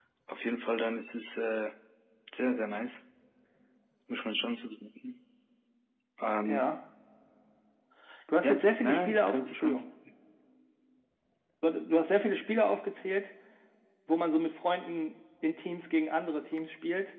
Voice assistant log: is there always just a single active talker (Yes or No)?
No